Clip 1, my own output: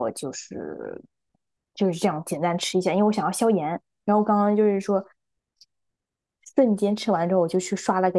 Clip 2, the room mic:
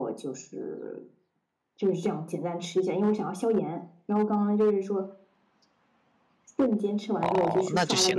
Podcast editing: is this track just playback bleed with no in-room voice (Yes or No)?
No